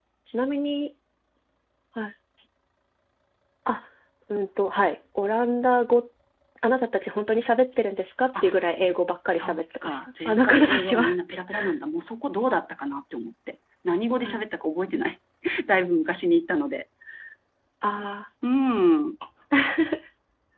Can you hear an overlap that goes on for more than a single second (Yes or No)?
Yes